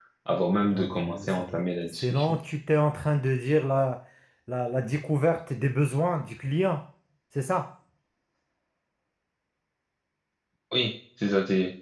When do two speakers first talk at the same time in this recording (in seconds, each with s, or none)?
0.7 s